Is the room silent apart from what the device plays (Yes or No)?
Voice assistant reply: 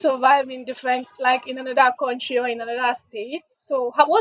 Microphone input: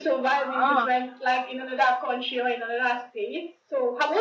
No